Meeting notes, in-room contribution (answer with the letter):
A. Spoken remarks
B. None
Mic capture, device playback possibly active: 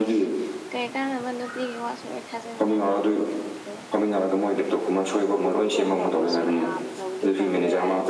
A